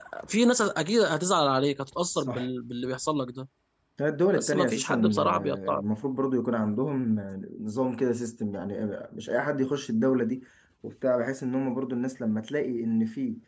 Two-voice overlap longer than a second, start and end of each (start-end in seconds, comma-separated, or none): 4.3-5.8